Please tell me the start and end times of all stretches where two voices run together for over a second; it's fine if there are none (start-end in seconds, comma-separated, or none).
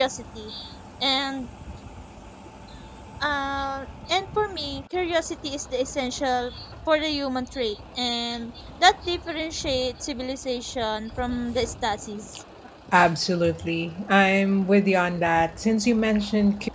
none